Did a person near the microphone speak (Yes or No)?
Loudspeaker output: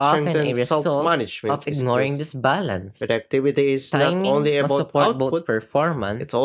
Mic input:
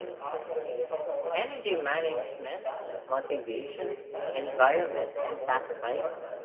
Yes